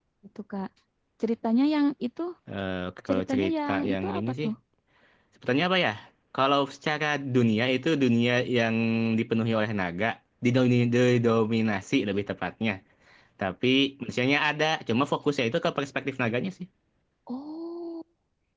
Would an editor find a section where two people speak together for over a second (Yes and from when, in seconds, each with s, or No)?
Yes, from 3.1 s